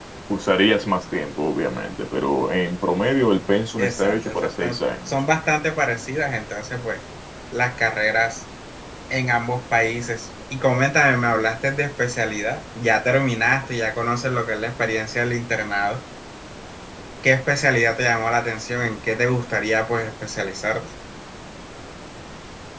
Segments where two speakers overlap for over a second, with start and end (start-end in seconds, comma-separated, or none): 3.8-5.1